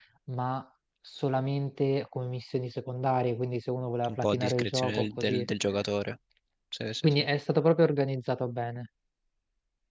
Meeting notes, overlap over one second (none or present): present